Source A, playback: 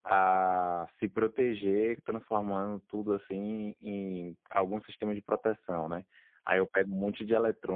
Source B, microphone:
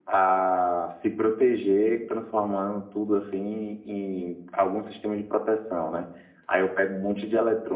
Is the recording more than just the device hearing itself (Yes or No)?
No